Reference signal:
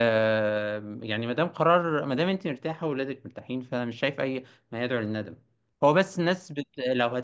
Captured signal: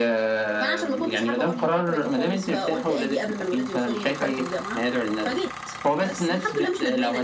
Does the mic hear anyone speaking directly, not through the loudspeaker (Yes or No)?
Yes